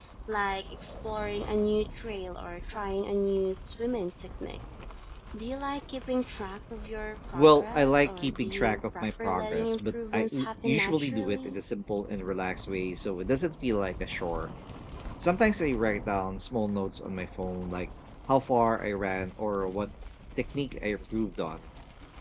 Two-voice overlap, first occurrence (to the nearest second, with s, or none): 7 s